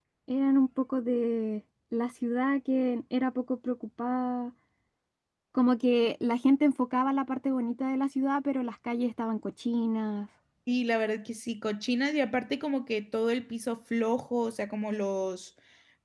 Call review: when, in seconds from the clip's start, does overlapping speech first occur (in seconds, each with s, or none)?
none